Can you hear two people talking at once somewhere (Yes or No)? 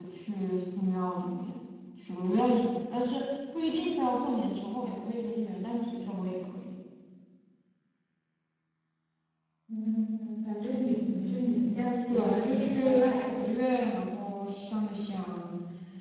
Yes